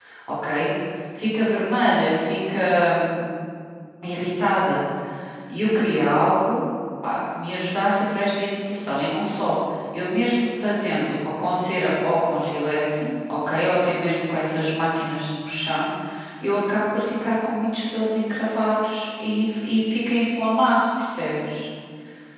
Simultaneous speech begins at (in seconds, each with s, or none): none